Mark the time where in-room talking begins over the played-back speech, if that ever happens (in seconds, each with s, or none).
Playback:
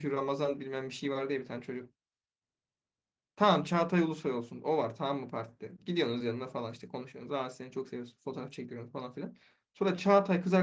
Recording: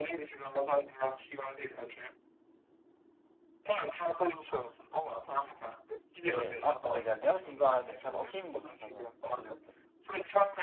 6.2 s